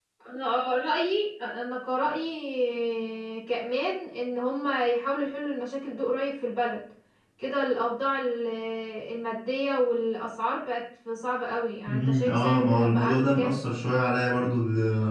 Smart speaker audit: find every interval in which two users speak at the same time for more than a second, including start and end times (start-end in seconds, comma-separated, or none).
11.9-13.6